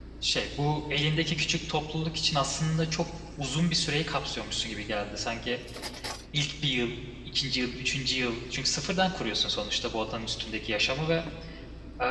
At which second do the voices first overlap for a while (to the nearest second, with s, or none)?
none